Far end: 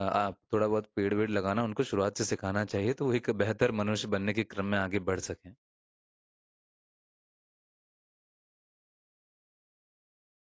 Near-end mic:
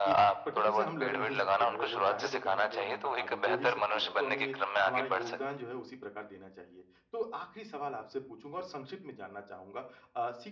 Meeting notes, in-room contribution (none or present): present